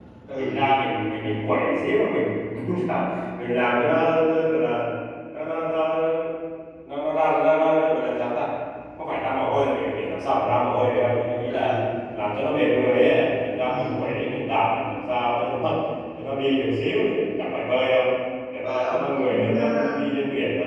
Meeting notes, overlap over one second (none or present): present